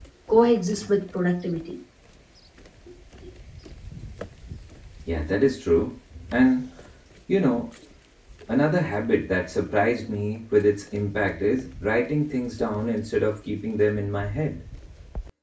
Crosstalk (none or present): none